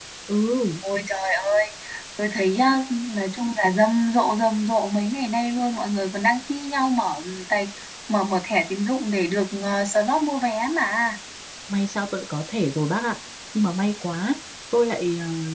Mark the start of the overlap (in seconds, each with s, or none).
none